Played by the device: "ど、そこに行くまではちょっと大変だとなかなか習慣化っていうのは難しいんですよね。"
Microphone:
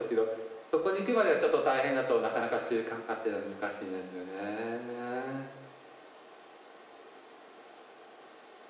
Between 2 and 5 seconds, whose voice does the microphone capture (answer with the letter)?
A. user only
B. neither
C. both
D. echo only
D